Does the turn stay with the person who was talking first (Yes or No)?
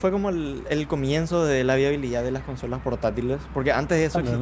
Yes